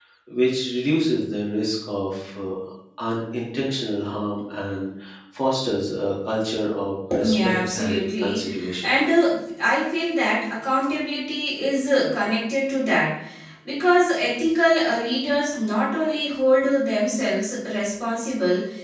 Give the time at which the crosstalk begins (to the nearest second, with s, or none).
7 s